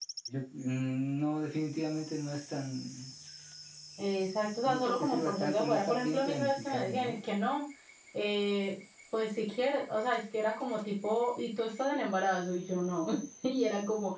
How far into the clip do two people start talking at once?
4.7 s

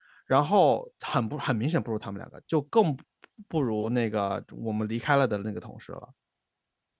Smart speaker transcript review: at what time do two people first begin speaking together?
none

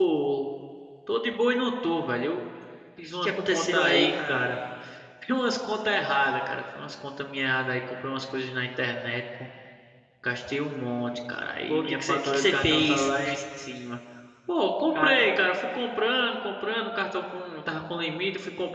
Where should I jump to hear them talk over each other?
3.1 s

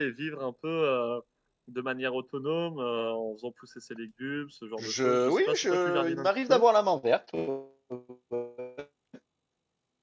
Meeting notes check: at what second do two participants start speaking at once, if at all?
4.8 s

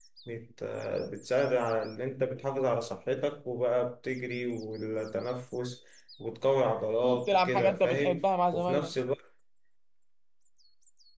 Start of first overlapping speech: 7.0 s

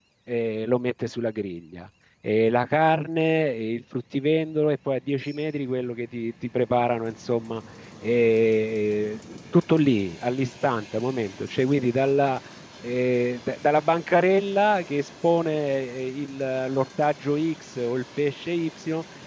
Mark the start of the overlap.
none

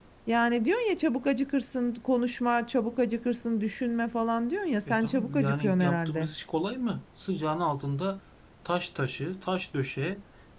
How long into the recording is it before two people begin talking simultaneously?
4.9 s

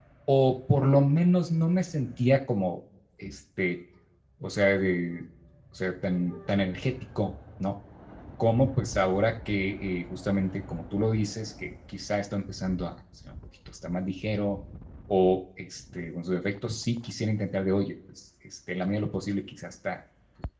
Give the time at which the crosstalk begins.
none

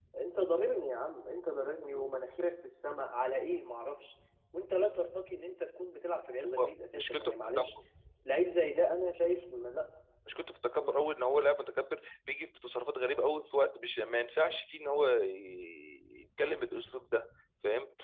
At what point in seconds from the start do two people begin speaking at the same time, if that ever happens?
6.4 s

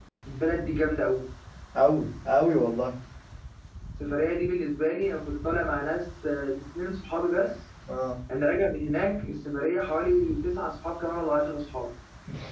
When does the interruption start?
none

